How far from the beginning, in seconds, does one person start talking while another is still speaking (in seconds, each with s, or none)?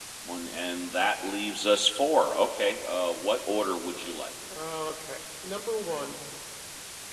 none